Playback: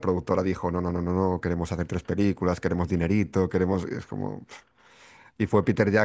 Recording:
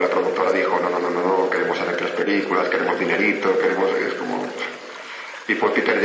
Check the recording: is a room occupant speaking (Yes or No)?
No